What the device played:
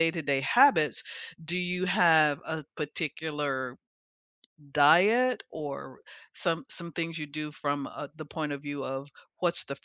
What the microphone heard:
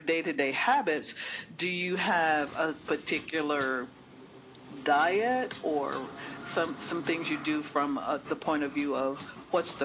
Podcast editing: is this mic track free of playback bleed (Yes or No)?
No